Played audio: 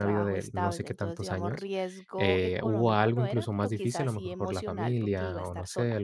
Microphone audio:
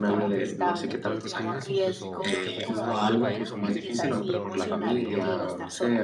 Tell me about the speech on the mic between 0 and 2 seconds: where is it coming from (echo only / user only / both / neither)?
both